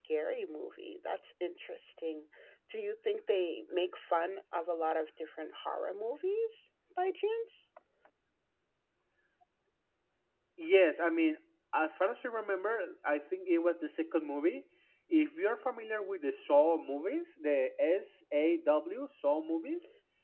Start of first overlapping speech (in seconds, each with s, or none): none